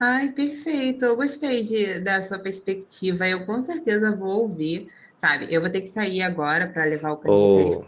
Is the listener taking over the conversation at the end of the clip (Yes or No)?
No